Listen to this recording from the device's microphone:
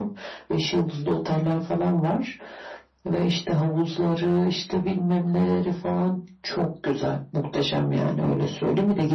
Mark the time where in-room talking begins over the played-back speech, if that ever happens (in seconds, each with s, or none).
none